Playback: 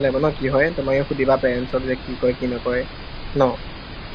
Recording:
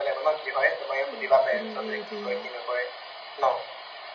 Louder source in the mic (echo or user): echo